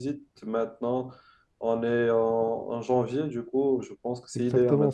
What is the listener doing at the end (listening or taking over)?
taking over